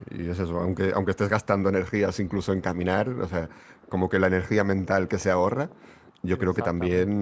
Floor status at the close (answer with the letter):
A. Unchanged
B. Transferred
A